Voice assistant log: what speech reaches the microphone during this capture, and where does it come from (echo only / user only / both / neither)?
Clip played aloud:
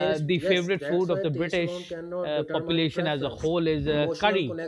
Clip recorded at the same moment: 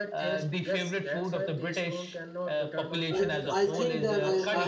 both